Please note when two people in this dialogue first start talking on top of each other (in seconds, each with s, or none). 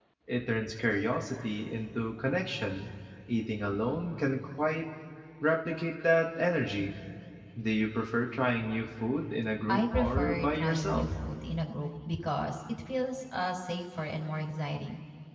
9.7 s